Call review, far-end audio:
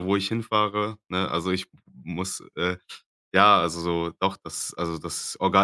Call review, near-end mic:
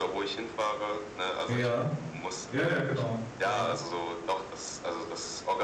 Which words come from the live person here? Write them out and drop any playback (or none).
Ja. Ja, ja, genau. Ja.